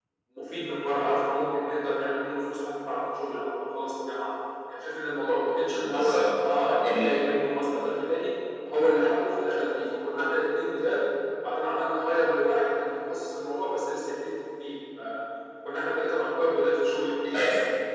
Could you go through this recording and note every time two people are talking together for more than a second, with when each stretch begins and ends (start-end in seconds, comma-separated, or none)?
5.7-7.1